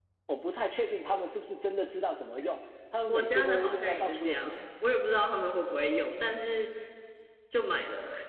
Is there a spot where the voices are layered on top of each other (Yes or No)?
Yes